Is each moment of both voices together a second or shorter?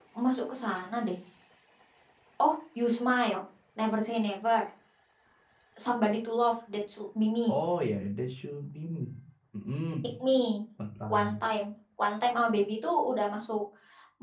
Yes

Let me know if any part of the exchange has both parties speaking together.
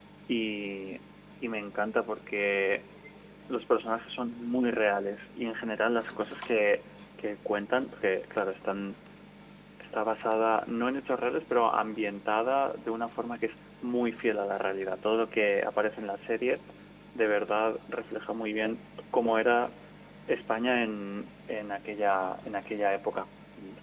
No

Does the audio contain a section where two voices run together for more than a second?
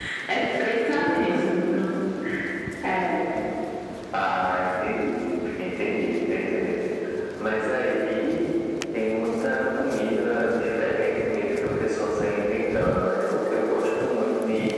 No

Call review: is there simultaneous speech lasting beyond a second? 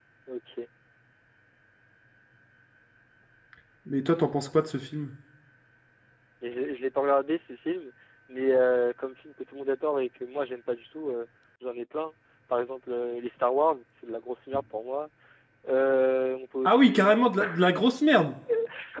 No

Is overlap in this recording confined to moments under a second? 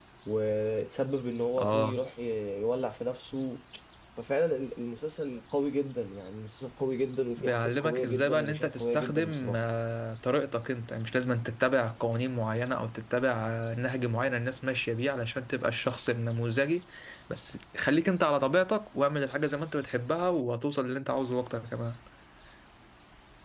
No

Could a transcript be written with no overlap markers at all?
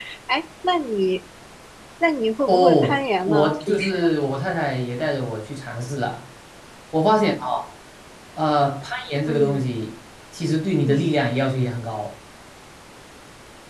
No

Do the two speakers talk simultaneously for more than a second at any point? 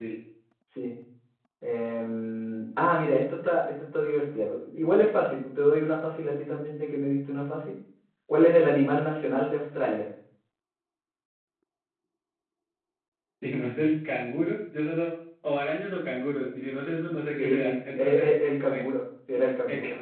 Yes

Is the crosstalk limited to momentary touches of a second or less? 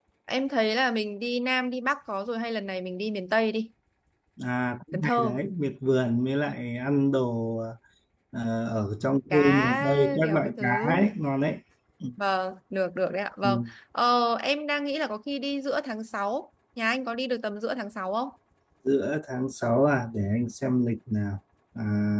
No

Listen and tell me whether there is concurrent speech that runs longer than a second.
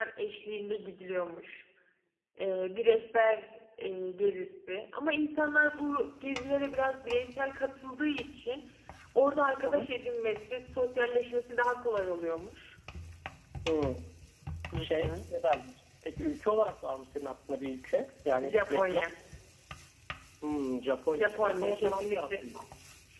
Yes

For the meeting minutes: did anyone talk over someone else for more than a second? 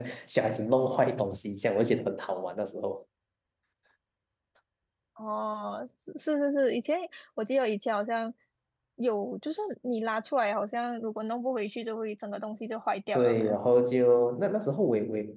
No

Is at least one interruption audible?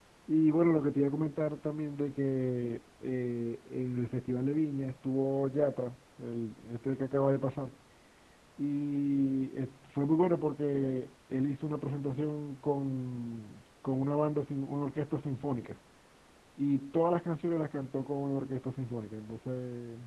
No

